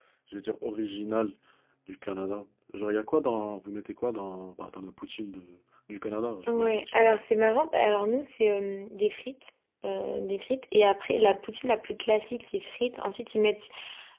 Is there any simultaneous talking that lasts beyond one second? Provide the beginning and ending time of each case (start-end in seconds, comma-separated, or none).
none